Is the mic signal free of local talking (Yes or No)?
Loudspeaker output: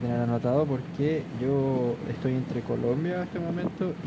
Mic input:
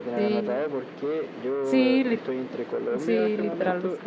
No